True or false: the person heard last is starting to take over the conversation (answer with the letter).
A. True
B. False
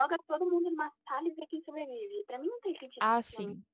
A